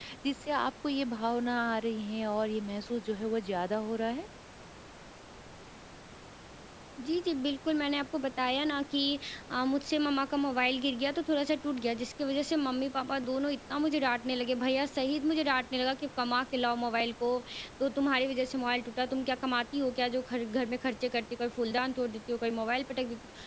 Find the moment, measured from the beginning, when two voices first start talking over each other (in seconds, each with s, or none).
none